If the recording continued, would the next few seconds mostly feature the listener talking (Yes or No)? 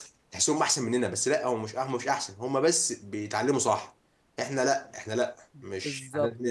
Yes